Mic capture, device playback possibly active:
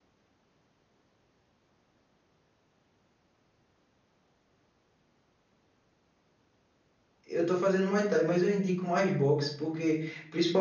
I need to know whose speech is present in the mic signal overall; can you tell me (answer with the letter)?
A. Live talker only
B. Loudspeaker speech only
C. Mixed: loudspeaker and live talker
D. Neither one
A